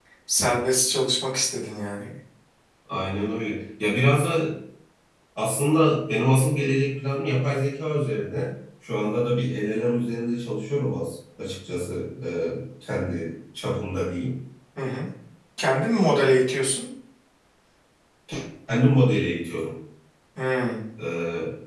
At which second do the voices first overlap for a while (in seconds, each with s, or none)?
none